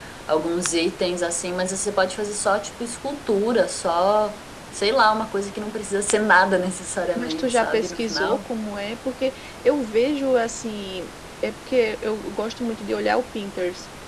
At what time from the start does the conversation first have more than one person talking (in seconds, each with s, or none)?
7.2 s